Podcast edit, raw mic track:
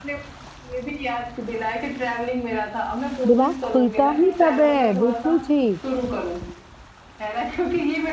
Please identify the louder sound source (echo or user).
user